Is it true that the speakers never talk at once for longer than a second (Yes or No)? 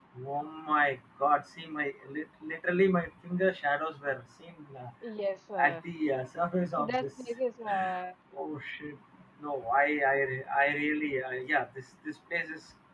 Yes